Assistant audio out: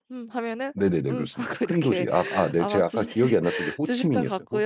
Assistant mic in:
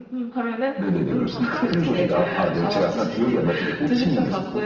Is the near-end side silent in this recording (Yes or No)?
No